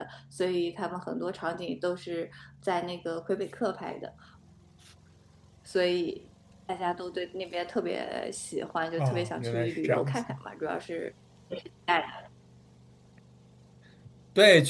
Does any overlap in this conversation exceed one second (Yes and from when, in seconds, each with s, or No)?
Yes, from 9.0 s